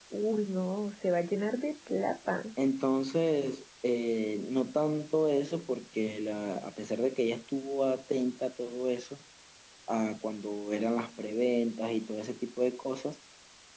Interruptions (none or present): none